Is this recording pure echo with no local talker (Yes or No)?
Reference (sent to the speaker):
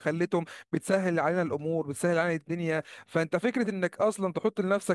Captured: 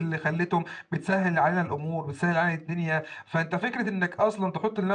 Yes